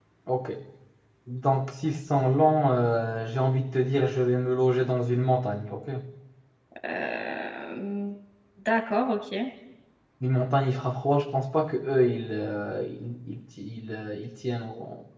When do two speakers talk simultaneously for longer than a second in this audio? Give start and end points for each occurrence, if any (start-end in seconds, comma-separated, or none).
none